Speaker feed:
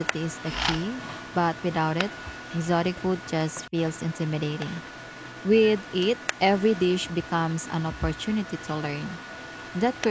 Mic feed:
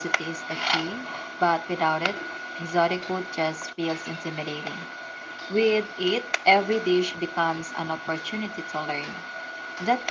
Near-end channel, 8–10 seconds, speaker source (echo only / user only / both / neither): echo only